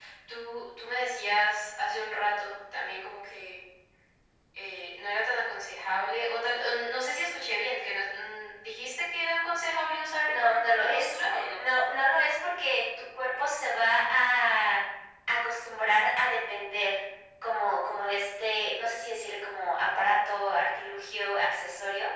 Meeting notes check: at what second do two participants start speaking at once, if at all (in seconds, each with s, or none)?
10.2 s